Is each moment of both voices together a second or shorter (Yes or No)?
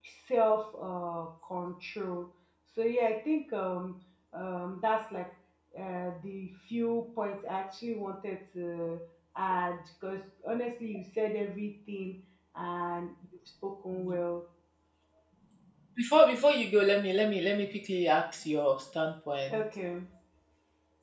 Yes